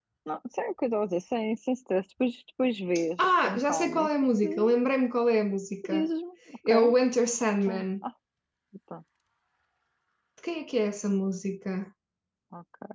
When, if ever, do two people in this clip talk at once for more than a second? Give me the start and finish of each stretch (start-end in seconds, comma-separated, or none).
3.2-4.8